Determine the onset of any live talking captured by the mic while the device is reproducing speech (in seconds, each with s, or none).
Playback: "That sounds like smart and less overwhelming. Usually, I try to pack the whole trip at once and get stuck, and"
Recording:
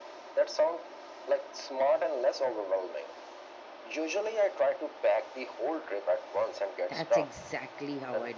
6.9 s